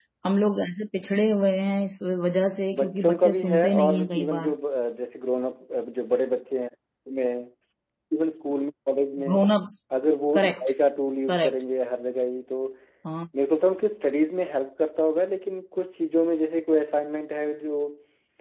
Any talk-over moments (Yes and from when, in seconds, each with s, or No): Yes, from 2.8 s